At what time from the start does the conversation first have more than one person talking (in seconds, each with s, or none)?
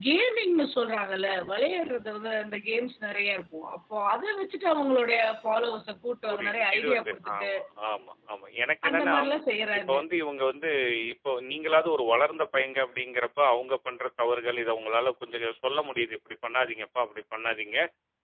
6.3 s